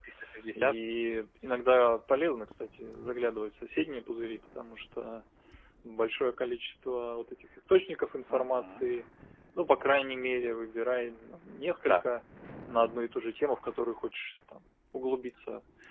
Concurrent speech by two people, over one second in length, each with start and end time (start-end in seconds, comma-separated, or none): none